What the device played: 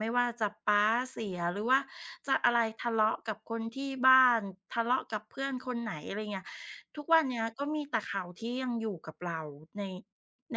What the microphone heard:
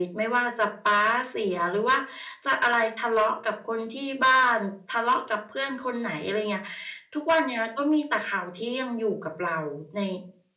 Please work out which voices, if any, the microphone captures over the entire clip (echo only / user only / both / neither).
echo only